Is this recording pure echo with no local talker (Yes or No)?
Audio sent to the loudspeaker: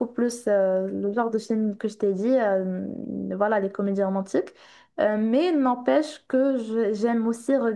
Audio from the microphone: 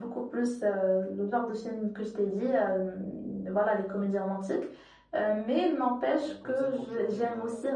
No